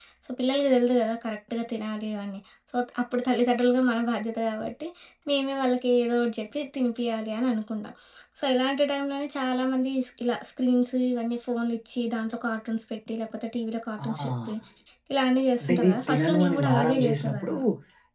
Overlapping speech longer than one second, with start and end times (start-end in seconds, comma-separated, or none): 15.6-17.5